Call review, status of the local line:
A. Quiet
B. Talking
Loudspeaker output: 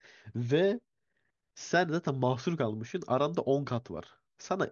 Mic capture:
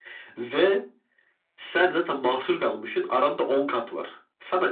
A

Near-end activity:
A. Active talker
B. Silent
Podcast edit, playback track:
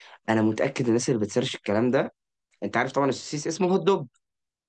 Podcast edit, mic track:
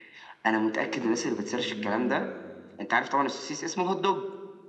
A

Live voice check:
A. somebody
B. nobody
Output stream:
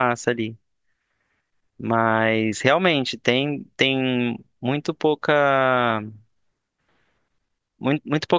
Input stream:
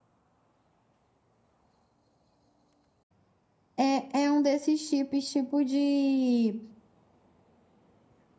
A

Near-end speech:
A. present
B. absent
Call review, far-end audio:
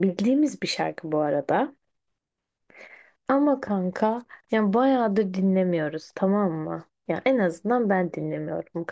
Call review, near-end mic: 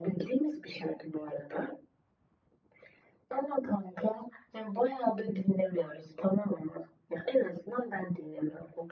B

